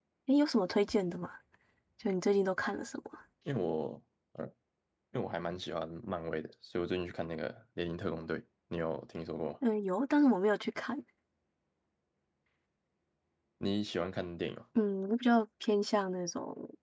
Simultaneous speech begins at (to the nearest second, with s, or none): none